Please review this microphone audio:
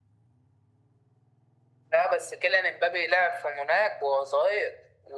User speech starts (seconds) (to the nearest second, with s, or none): none